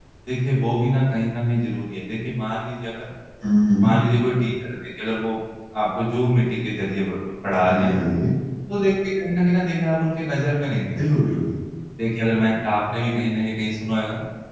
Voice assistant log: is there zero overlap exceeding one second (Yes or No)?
Yes